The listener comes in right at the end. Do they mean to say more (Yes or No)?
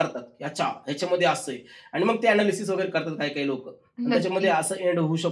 No